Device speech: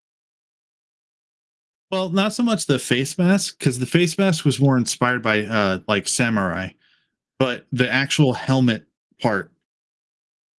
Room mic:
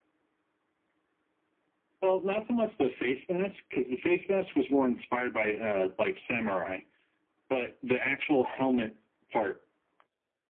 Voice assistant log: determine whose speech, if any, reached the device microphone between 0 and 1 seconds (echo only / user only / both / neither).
neither